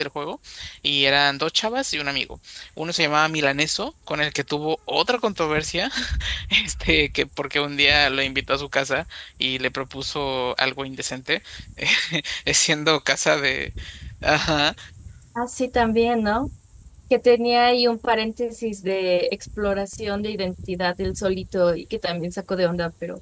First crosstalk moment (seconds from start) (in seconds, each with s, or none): none